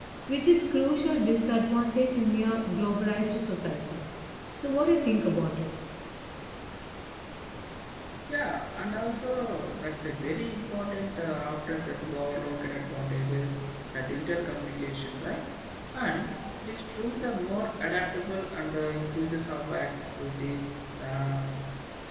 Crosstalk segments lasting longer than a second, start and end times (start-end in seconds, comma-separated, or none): none